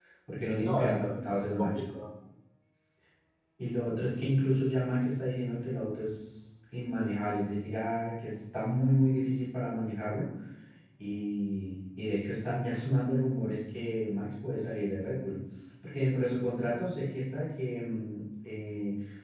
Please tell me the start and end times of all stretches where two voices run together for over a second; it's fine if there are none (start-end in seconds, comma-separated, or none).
0.6-1.9